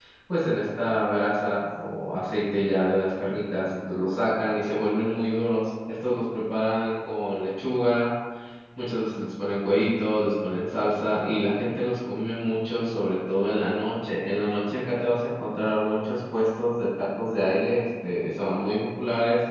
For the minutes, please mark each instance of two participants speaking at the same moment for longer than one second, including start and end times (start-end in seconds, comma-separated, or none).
none